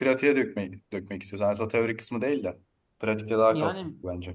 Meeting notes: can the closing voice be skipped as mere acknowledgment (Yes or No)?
No